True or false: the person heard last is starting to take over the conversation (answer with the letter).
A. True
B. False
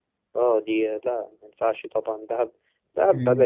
B